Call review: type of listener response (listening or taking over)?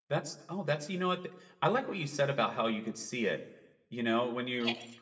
listening